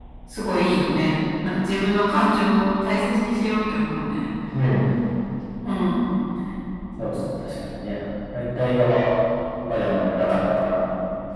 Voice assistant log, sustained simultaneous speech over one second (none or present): none